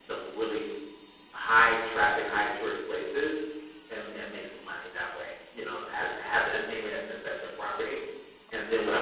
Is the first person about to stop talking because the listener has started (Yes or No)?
No